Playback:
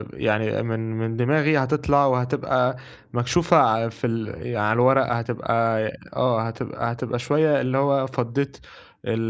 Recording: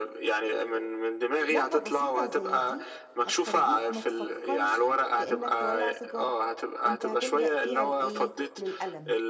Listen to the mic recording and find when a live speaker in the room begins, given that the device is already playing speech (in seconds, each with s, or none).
1.5 s